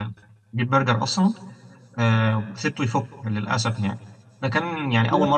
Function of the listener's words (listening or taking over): listening